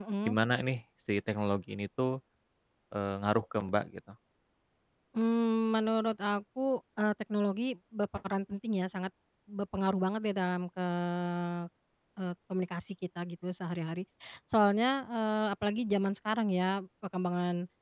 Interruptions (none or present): none